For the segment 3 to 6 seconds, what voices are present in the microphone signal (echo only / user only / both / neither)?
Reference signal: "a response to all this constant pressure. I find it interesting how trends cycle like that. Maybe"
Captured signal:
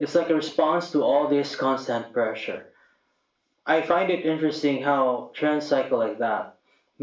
echo only